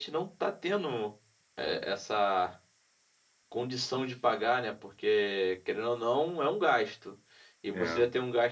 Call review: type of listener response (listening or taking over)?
listening